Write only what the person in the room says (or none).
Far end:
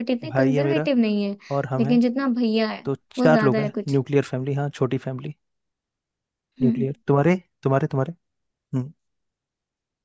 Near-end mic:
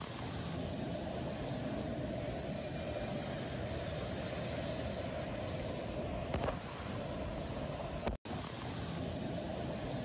none